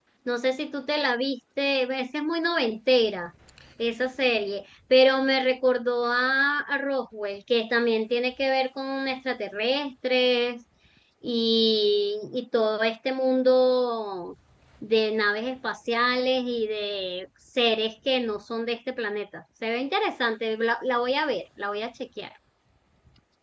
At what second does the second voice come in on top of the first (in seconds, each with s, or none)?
none